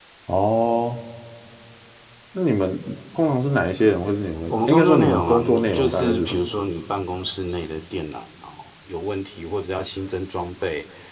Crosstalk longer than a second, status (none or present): present